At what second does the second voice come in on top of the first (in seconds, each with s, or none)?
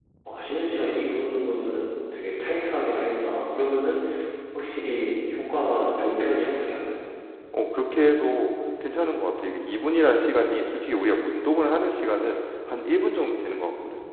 none